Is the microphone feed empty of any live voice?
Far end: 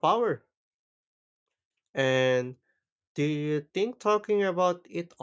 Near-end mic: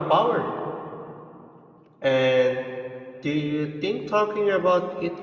Yes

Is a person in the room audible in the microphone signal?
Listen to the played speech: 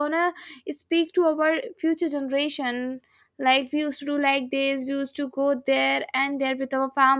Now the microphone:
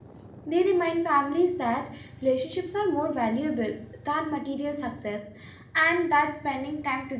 Yes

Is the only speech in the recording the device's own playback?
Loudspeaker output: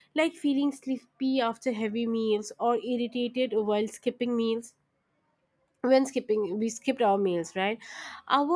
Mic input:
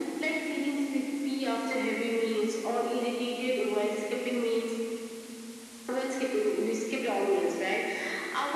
Yes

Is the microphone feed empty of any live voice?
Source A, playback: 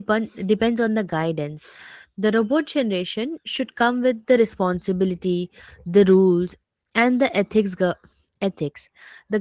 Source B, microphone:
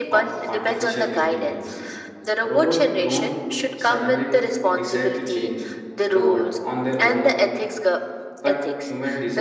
No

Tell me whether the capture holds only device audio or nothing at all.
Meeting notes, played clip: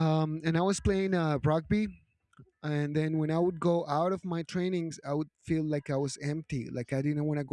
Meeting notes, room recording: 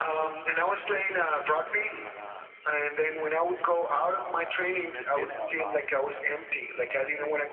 No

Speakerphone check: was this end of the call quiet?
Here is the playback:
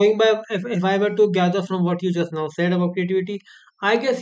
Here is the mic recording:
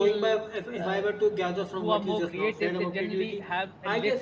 No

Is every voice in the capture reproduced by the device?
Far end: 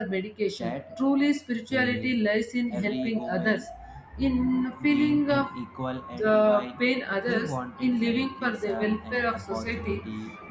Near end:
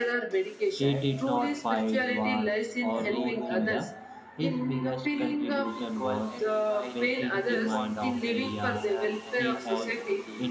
No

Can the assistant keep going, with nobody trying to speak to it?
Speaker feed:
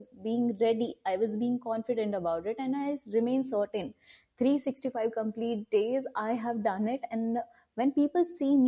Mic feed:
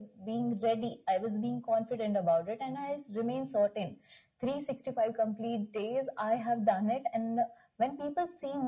Yes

